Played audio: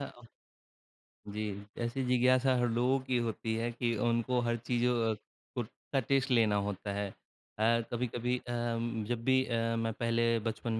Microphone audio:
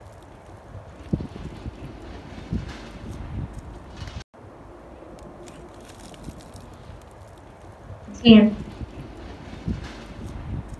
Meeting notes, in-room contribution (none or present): present